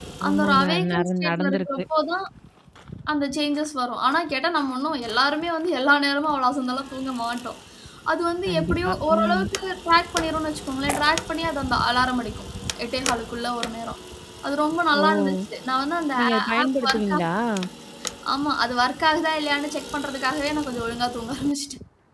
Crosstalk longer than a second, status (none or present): present